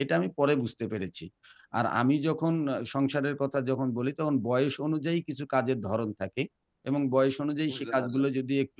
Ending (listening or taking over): listening